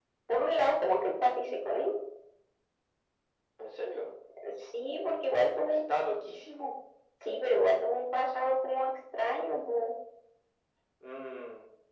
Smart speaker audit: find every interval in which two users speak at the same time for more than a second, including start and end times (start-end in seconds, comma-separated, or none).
none